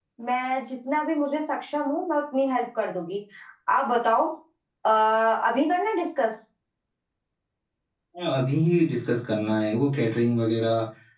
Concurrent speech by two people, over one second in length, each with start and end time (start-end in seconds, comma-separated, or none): none